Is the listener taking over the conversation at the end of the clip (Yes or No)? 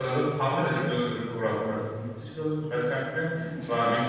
No